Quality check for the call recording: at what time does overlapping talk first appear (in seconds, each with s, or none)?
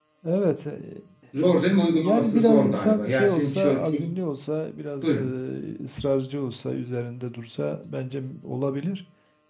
2.0 s